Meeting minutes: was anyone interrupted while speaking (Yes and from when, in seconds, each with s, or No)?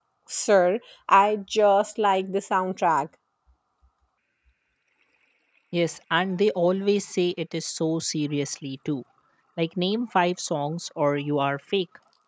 No